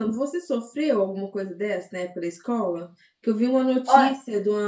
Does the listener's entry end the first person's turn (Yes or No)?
No